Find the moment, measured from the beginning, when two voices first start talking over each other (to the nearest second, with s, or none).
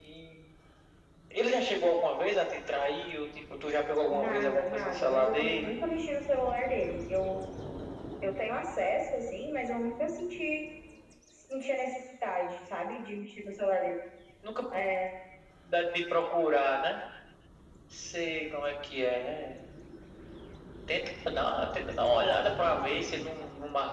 4 s